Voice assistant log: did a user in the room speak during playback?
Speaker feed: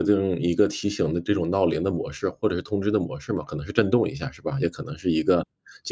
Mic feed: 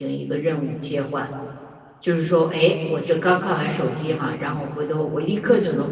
Yes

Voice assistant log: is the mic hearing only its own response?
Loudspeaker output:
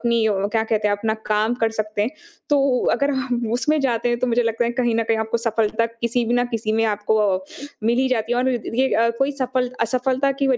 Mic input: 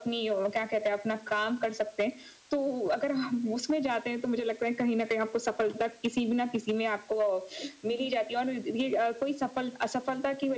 Yes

